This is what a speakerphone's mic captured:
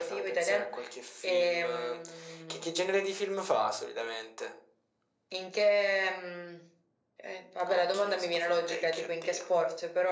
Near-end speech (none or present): none